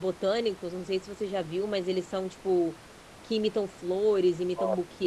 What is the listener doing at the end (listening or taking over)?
listening